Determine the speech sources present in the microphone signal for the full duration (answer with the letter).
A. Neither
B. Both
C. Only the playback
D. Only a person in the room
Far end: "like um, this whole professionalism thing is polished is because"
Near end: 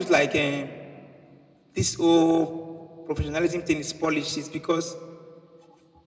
C